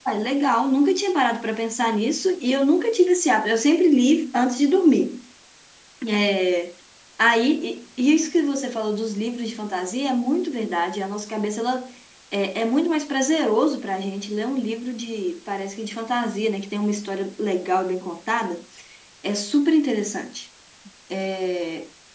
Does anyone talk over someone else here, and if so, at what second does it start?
none

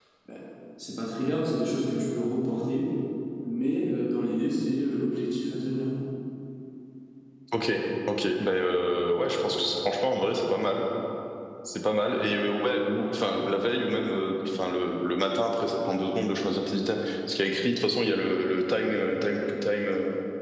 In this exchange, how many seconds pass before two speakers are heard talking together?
none

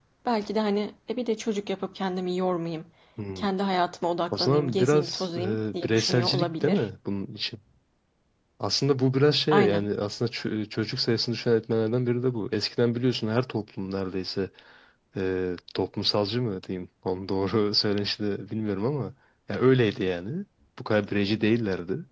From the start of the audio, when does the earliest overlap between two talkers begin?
4 s

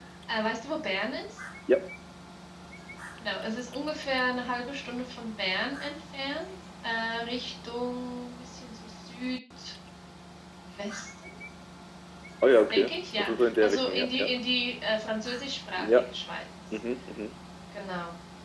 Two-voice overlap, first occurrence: 13 s

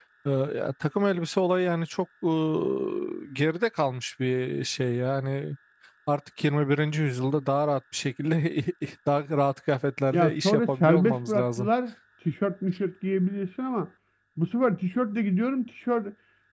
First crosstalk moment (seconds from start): 10 s

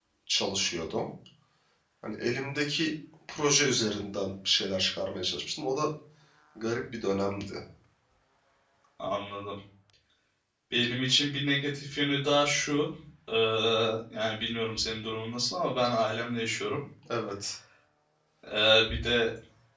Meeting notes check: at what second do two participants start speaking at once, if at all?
none

